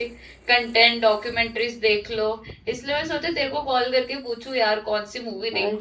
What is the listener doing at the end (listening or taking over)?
taking over